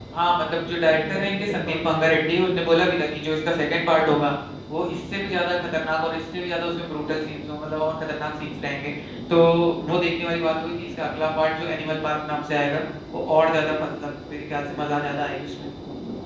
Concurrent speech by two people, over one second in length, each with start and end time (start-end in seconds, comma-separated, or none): 0.8-2.5